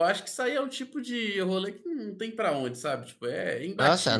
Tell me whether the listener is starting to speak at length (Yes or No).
Yes